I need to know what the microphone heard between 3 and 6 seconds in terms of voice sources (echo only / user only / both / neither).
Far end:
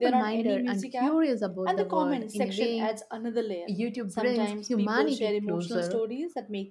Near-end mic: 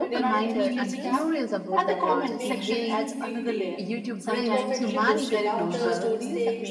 both